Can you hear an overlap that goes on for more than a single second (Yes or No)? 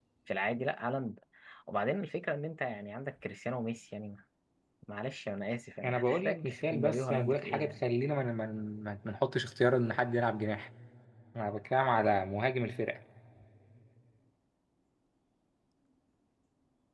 Yes